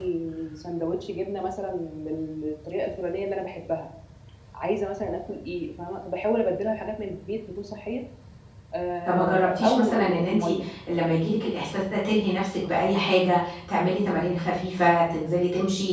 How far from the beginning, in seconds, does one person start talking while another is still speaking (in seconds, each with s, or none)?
9.0 s